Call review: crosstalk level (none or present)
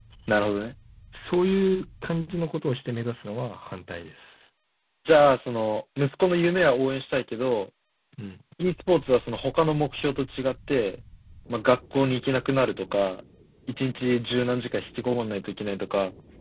none